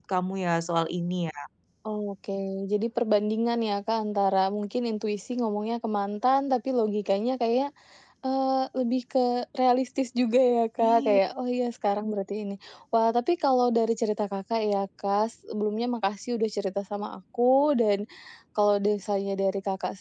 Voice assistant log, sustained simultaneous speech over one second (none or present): none